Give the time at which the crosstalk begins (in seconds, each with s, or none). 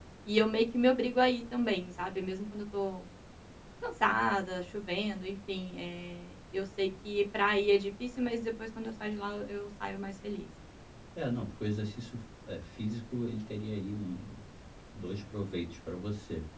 none